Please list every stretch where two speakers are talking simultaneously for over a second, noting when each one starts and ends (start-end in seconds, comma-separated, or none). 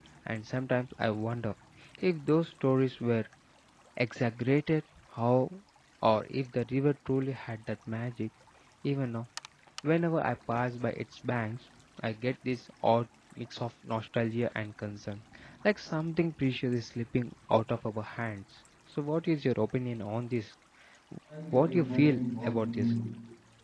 21.5-22.9